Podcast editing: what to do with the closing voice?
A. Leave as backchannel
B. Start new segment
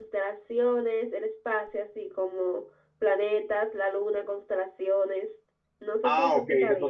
B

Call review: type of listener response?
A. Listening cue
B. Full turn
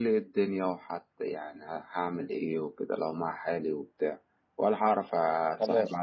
A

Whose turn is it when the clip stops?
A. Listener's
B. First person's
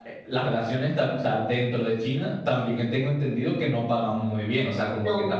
B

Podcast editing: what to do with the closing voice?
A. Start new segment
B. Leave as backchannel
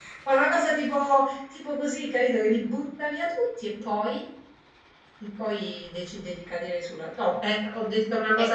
A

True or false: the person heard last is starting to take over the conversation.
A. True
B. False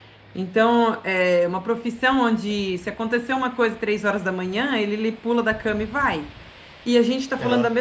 B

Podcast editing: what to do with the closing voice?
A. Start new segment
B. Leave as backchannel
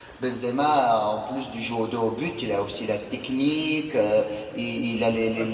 B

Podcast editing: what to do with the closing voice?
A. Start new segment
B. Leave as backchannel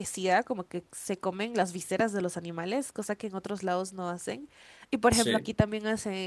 B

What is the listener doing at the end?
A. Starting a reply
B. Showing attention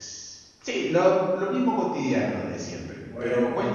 B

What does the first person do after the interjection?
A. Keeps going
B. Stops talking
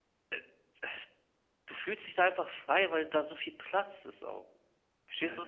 B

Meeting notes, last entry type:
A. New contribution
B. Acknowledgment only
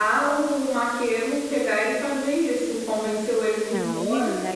A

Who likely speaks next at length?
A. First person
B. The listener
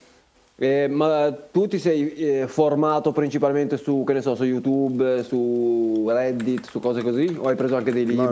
B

